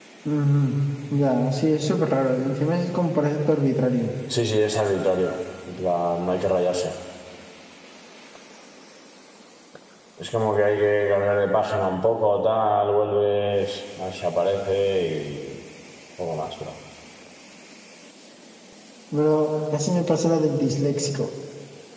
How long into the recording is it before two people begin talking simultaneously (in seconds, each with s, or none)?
none